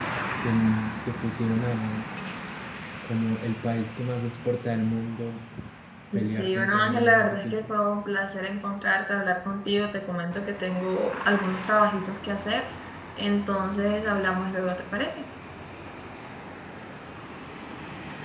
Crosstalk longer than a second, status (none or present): present